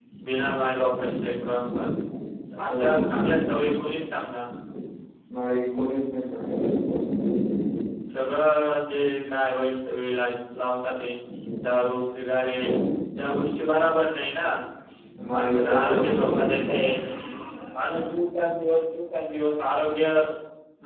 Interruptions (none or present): present